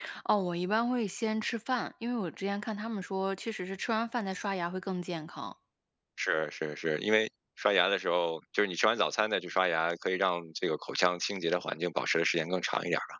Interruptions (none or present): none